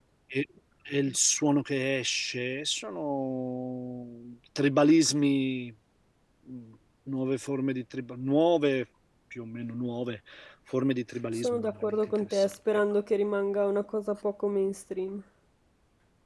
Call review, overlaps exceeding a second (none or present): present